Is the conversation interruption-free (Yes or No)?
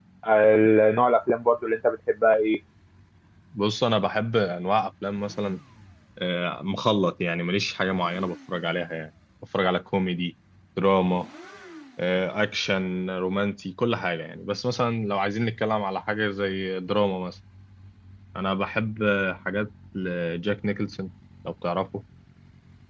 Yes